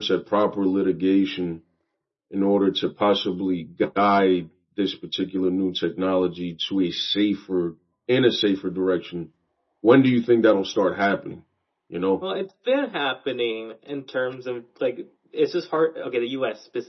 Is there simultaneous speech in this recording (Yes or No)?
No